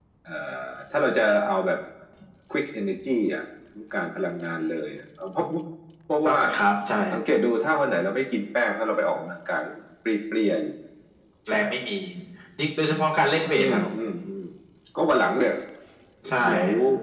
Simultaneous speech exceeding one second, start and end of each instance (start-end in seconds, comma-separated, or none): none